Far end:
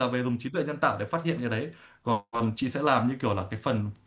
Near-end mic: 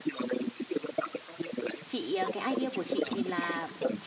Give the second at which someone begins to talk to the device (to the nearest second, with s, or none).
2 s